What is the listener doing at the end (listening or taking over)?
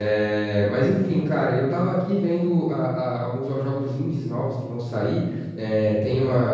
listening